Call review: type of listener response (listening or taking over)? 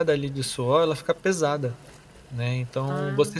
listening